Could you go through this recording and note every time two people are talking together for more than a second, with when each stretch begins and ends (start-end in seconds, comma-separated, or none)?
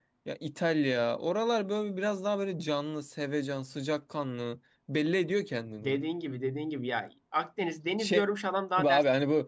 none